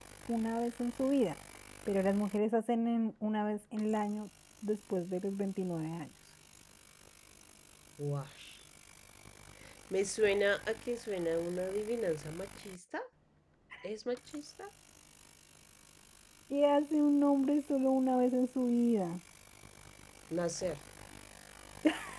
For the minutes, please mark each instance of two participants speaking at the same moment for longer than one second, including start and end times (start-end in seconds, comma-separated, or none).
none